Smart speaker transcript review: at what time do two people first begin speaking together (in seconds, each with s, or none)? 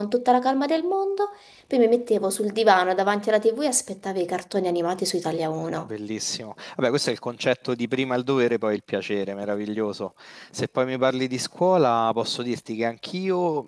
none